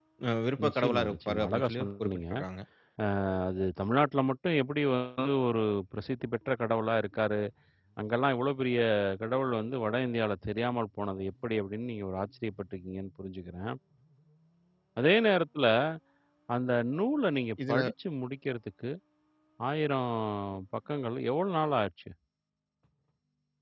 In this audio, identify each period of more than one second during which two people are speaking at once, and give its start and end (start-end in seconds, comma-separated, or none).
0.6-2.2